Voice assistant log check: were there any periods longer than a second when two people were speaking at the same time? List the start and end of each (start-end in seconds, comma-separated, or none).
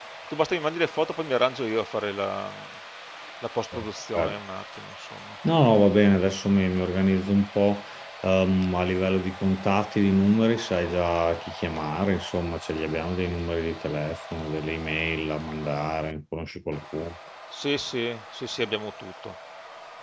none